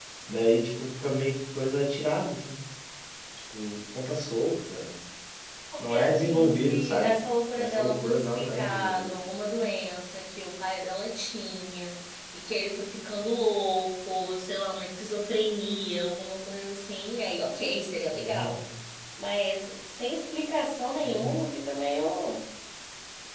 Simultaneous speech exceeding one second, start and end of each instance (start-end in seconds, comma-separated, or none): 5.9-7.1, 7.6-9.1